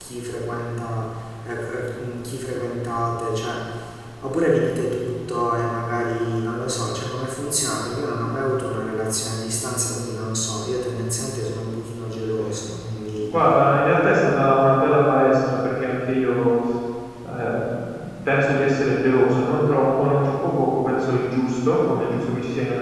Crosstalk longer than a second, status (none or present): none